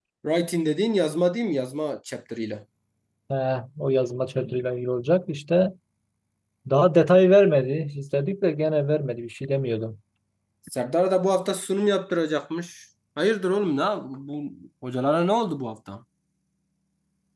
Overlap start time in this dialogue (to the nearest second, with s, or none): none